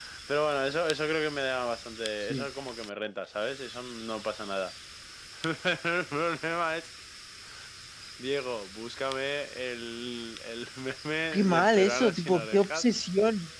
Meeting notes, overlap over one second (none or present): present